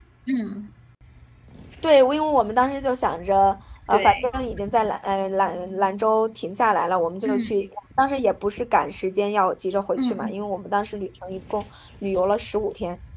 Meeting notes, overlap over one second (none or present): none